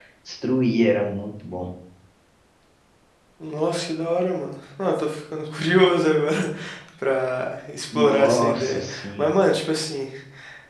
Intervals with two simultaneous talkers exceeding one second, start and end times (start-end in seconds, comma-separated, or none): 8.0-9.3